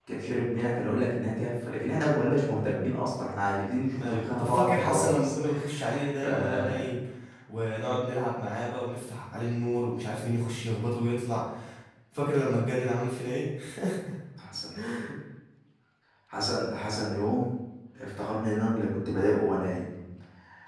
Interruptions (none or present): present